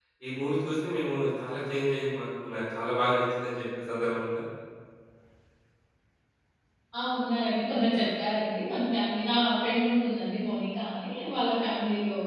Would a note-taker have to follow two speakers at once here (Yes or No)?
No